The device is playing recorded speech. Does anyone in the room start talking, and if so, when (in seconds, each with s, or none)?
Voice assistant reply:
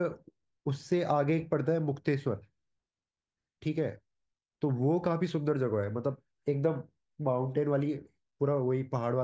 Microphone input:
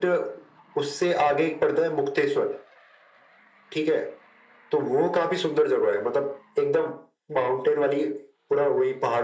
none